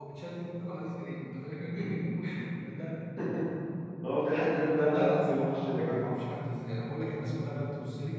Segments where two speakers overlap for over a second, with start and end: 4.7-6.0

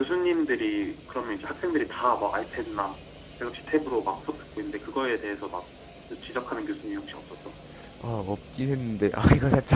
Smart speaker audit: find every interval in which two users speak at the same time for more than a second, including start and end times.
none

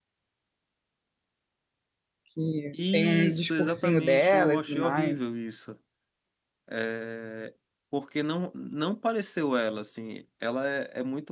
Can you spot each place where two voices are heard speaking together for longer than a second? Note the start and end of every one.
2.9-5.2

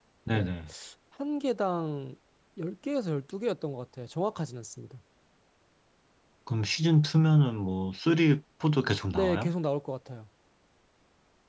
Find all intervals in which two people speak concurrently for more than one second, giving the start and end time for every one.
none

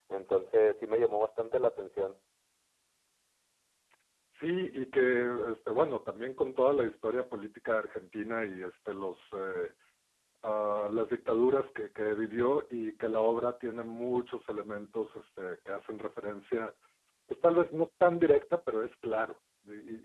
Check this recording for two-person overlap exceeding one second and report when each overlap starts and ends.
none

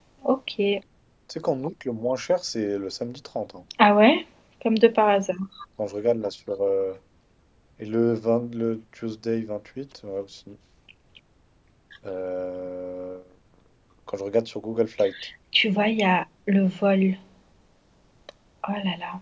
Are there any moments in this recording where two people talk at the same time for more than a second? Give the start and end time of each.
none

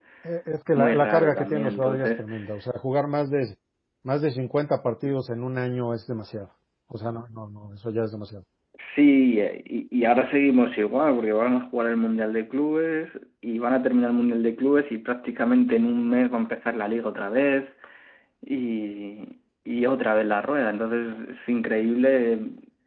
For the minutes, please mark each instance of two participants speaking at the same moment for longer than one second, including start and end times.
0.8-2.2

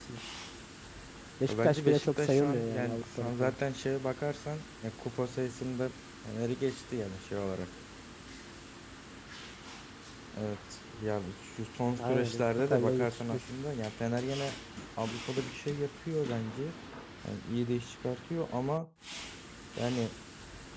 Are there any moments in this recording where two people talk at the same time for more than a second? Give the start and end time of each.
1.5-3.5, 12.0-13.4

